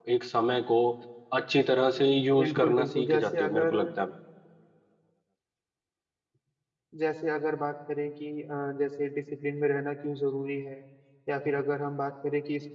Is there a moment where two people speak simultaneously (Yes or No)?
Yes